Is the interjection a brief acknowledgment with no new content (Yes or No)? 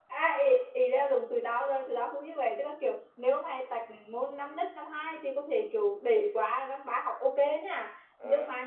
Yes